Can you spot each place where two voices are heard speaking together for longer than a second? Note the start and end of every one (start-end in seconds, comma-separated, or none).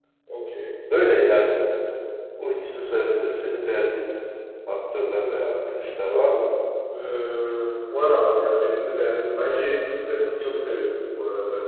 none